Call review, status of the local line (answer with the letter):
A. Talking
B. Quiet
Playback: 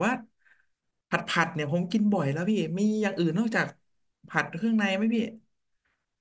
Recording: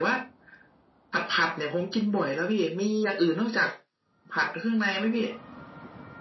B